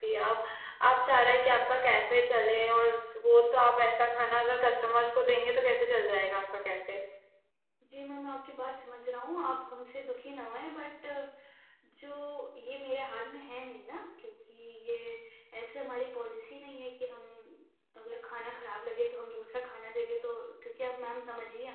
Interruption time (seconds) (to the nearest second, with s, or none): none